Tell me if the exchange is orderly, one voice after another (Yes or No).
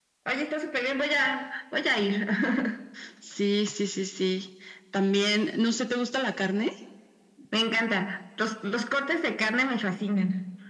Yes